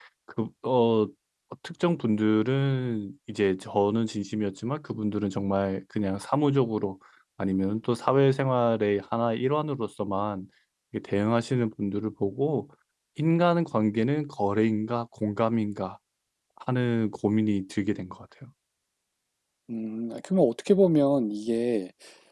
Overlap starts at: none

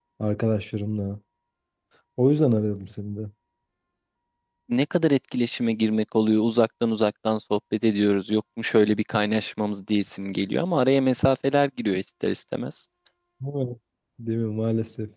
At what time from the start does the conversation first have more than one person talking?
none

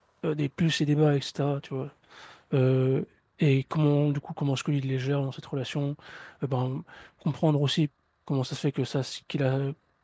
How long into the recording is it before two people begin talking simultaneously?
none

